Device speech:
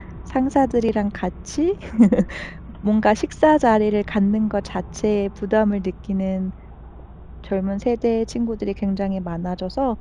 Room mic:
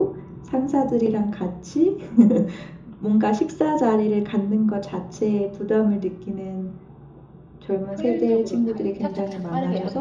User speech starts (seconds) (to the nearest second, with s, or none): 8 s